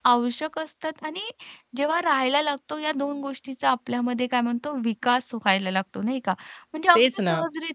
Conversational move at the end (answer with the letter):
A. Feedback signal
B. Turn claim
A